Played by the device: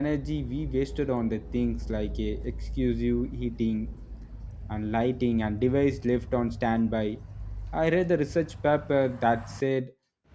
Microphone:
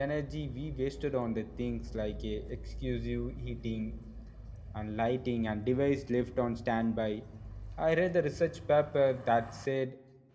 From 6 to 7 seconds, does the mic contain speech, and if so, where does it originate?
echo only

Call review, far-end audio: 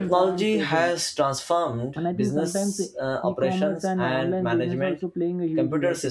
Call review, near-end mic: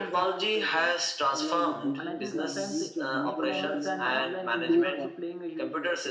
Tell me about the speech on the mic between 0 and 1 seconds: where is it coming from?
echo only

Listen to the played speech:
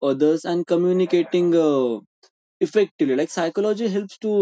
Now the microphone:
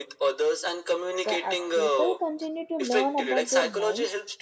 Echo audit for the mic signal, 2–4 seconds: both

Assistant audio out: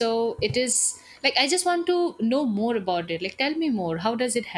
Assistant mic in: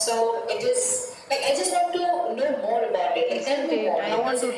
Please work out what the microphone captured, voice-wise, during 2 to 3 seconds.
echo only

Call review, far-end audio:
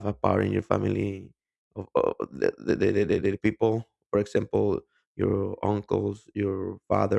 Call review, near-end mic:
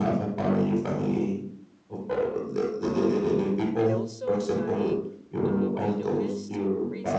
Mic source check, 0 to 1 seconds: echo only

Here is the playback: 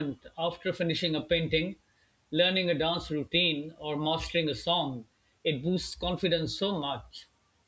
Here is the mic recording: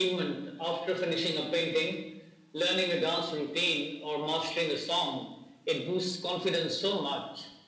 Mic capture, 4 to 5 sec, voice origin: echo only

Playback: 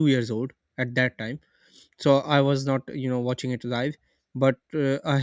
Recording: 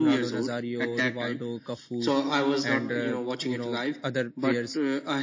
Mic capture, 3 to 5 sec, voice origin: both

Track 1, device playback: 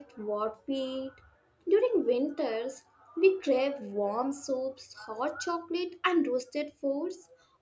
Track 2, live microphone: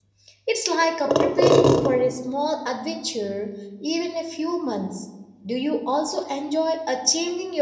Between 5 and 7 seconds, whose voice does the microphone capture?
user only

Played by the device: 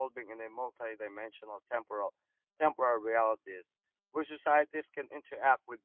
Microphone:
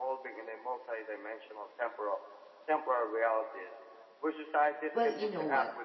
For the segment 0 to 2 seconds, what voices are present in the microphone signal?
echo only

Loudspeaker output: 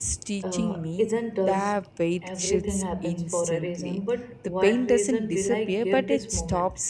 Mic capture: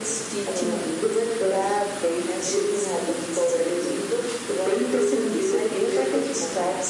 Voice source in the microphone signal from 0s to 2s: echo only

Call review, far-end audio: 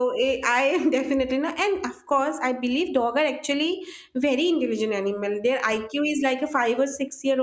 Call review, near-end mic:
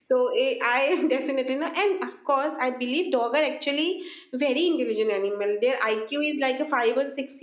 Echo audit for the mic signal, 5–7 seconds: echo only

